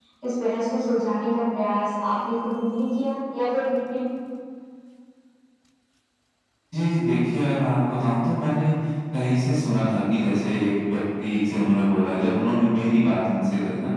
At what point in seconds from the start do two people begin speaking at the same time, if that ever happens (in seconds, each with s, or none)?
none